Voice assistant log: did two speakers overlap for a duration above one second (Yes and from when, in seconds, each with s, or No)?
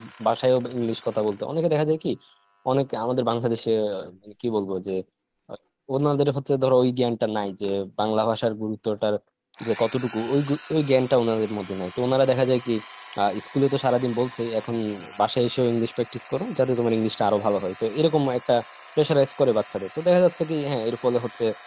No